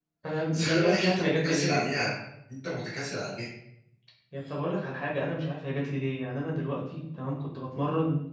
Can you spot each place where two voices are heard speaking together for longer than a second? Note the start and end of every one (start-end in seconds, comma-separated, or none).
0.5-1.9